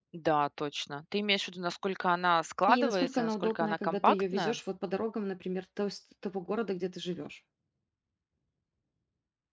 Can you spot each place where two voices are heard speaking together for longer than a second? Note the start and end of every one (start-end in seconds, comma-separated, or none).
2.7-4.6